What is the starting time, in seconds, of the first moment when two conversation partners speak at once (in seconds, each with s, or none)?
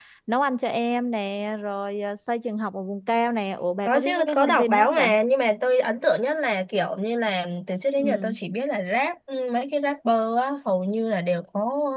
3.9 s